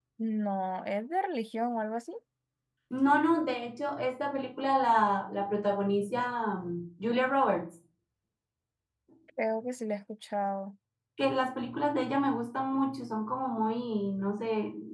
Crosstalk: none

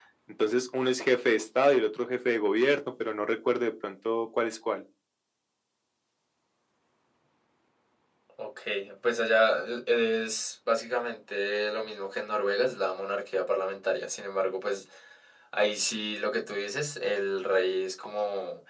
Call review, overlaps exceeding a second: none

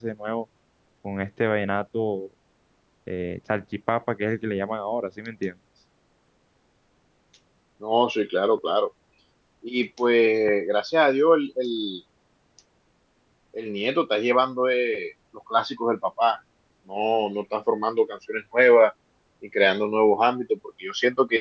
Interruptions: none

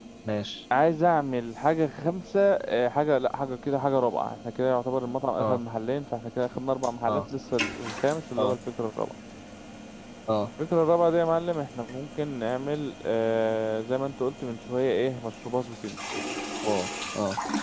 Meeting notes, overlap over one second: none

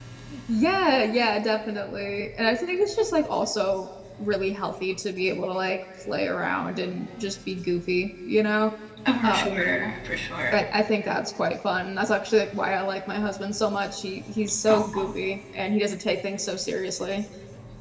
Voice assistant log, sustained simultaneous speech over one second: none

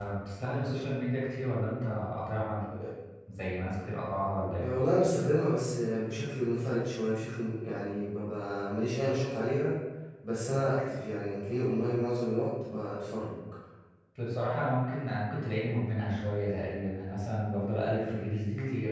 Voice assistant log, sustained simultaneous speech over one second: none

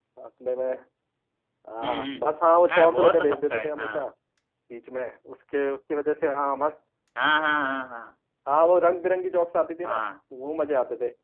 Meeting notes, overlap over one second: present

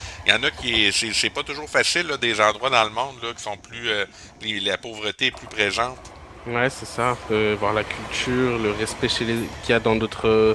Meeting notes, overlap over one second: none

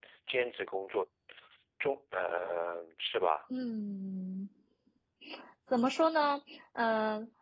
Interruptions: none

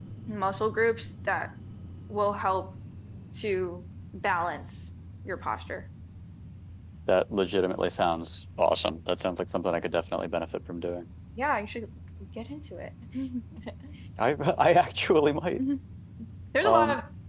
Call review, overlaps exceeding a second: none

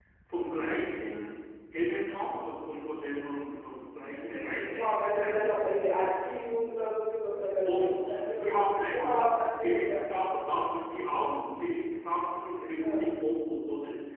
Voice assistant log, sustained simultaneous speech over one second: present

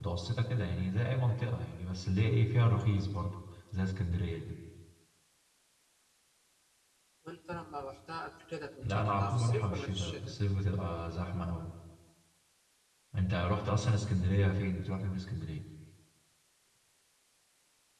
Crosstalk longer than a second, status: present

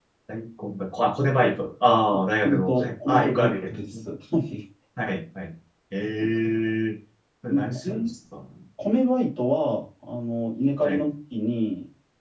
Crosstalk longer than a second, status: present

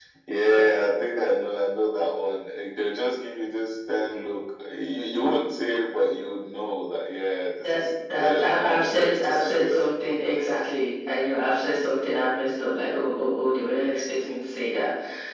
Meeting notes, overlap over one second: present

